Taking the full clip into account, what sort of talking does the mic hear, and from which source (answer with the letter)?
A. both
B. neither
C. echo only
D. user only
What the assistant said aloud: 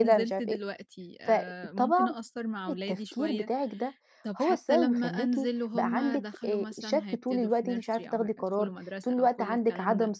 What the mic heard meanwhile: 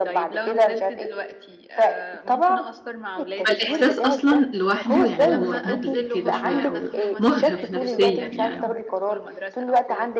A